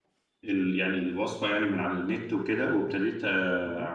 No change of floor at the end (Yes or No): Yes